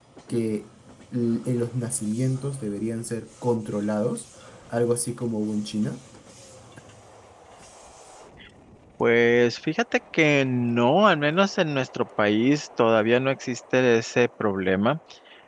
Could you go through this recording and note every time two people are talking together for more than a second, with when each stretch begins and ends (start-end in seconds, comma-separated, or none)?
none